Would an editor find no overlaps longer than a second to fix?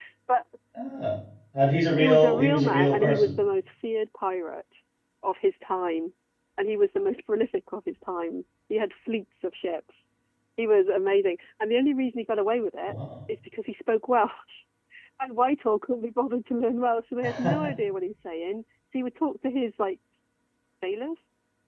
No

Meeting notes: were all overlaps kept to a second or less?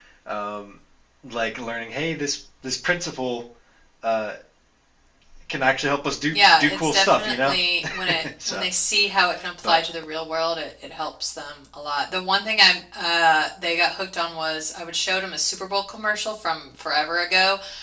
No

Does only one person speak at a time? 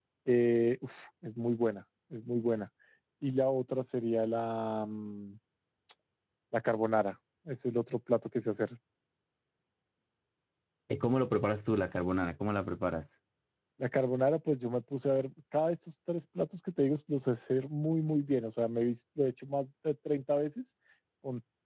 Yes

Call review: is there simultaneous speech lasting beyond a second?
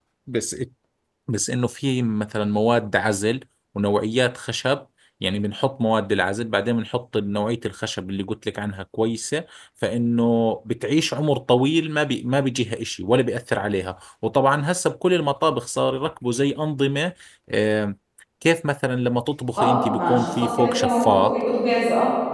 Yes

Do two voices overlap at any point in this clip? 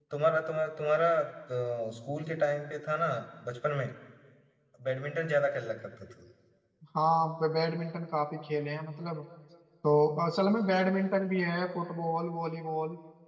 No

